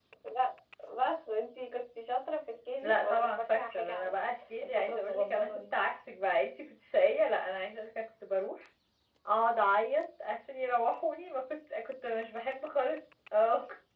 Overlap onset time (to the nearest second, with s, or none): 3 s